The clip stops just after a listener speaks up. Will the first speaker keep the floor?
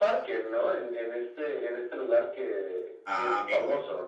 No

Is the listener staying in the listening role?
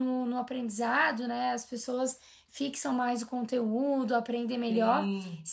Yes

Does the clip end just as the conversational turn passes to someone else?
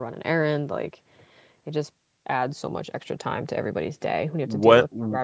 Yes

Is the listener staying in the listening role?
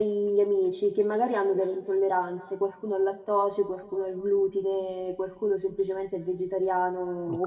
Yes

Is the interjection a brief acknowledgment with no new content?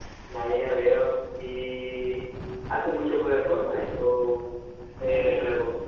No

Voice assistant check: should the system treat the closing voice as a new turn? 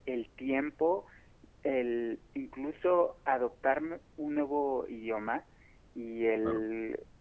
No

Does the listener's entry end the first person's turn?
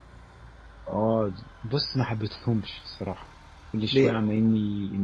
No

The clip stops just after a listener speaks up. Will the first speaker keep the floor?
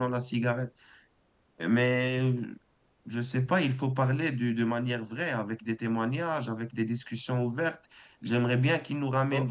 Yes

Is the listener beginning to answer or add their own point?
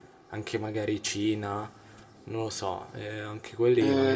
Yes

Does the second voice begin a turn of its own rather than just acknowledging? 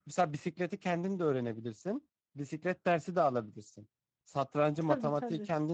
No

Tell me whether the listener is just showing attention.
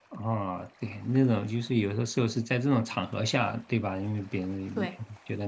Yes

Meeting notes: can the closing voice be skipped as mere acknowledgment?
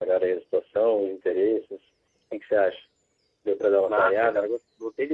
No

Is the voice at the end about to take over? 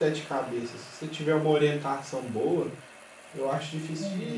No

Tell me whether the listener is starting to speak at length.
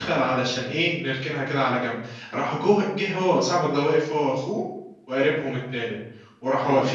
No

